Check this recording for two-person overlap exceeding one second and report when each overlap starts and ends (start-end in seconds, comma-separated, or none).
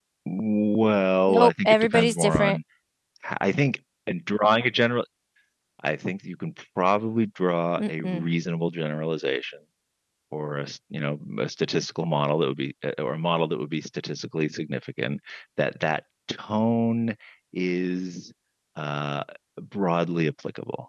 1.3-2.6